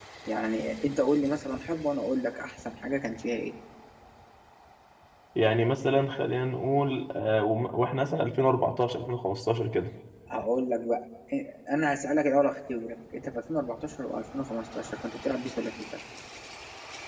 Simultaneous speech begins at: none

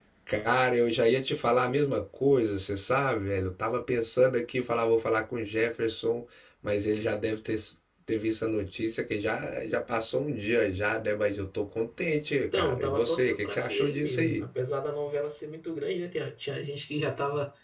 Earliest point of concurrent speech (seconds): 12.5 s

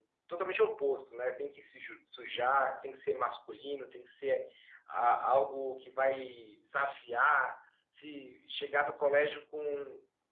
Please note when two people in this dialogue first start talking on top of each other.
none

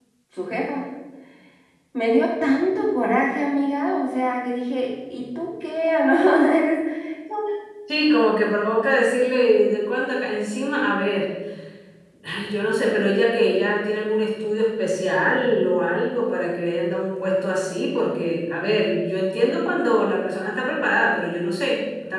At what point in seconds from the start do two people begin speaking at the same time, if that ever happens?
none

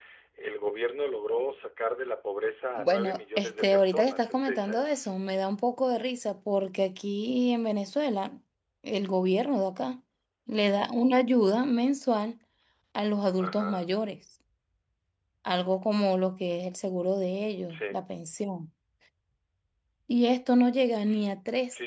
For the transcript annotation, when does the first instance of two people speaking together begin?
2.8 s

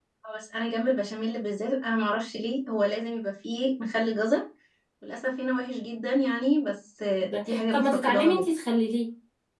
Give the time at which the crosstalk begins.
7.2 s

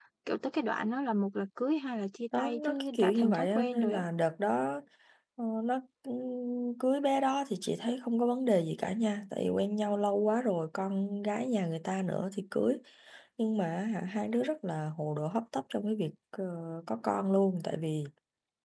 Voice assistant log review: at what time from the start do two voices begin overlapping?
2.3 s

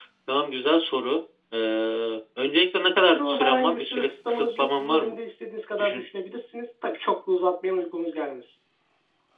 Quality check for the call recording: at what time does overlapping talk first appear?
3.1 s

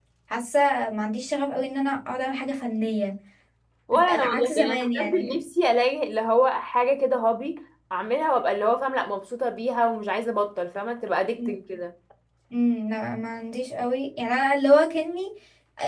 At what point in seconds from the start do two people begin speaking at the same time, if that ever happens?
4.1 s

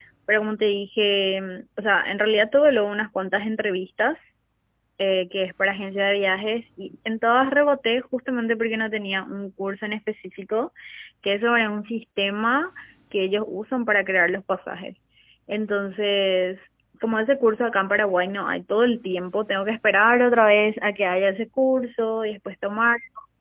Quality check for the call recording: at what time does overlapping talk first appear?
none

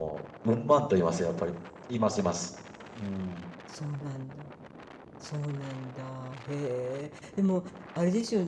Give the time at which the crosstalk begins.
none

